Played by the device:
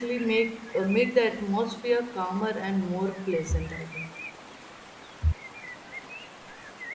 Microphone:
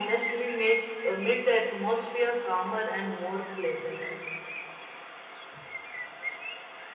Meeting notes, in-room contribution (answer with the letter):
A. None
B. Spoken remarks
A